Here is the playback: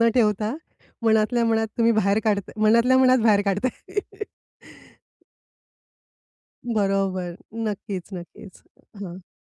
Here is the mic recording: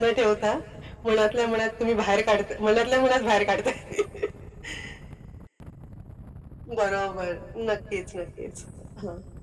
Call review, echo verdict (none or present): present